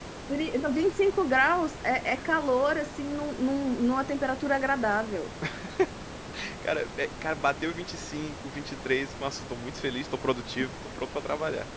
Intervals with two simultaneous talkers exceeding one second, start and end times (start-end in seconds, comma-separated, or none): none